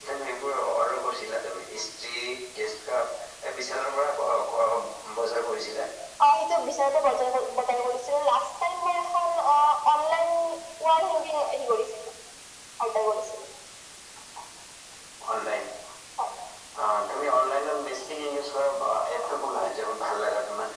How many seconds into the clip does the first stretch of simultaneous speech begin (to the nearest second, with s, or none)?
none